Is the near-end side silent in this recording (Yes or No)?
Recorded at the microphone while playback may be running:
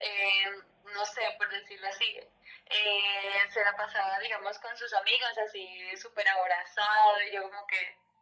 Yes